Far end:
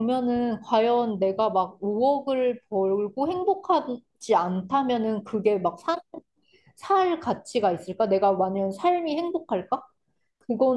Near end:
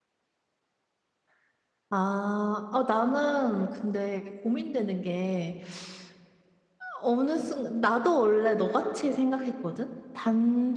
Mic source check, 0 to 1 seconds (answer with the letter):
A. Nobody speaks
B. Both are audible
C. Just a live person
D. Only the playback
A